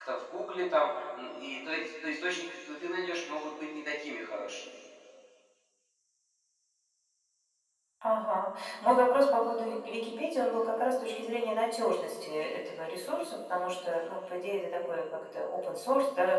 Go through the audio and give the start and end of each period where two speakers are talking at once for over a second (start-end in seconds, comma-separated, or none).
none